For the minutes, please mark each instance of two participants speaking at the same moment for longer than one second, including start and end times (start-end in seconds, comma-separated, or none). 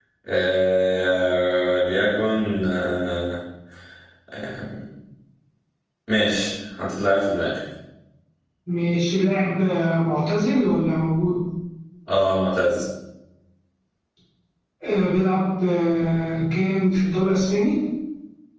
none